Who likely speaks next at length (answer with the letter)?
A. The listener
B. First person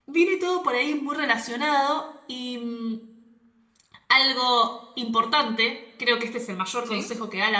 B